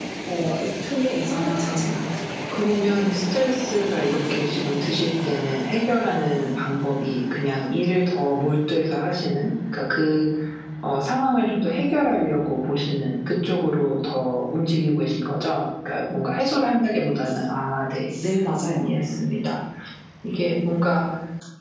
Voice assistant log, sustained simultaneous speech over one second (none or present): none